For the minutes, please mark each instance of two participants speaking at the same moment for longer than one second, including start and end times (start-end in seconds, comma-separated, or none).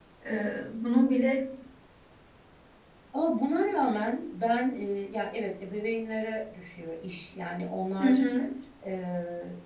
none